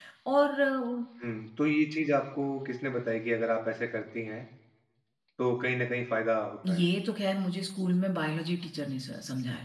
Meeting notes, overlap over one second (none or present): none